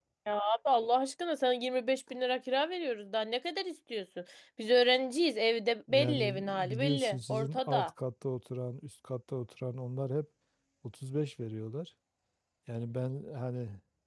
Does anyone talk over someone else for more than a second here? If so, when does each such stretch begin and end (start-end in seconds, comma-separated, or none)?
5.9-7.9